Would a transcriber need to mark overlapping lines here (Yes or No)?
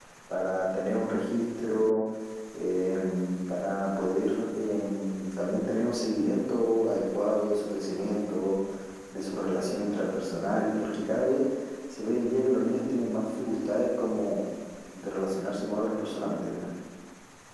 No